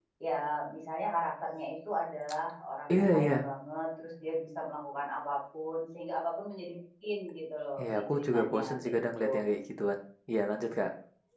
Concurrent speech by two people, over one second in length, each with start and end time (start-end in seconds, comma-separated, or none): 7.8-9.2